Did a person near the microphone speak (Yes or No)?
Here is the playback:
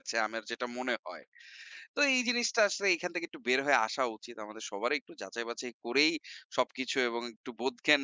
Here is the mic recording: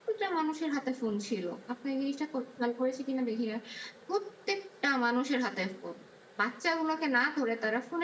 Yes